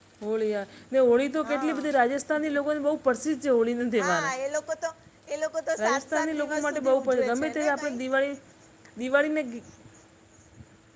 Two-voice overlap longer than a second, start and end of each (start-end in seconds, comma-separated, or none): 5.8-8.0